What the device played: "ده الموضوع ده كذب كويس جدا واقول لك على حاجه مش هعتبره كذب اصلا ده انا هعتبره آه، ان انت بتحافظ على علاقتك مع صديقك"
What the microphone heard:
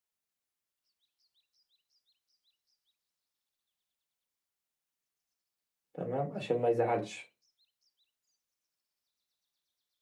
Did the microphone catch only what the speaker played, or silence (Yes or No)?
No